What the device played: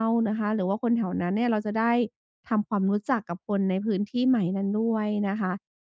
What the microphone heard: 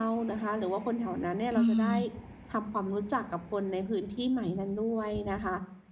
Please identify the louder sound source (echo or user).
user